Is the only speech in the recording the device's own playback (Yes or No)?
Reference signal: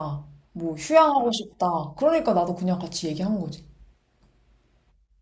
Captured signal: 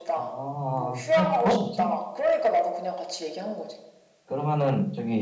No